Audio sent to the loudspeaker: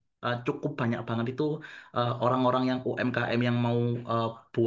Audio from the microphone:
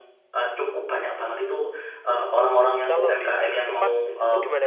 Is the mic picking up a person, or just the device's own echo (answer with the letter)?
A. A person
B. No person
A